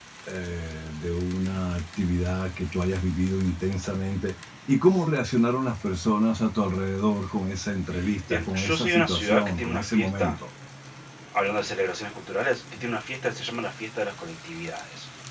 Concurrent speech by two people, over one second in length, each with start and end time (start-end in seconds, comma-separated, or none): 8.3-10.4